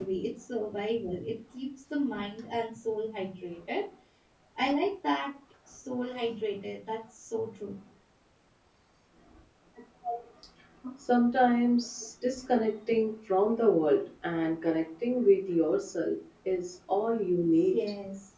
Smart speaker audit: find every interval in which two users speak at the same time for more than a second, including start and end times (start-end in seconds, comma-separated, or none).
none